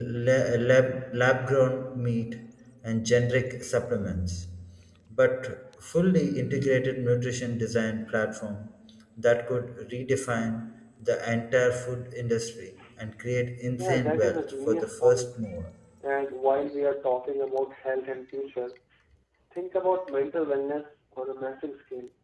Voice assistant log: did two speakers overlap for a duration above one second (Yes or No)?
Yes